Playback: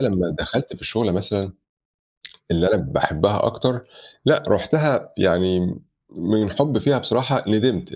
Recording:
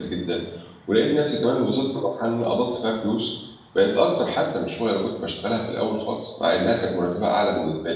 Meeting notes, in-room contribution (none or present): present